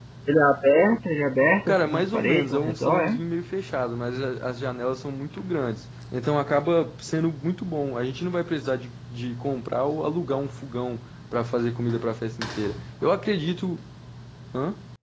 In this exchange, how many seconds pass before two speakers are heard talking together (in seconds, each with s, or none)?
1.7 s